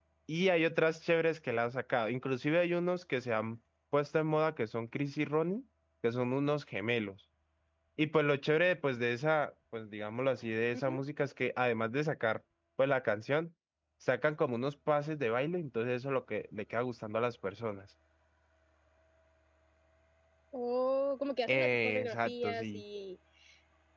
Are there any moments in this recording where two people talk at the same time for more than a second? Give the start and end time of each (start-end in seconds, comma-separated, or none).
21.5-22.8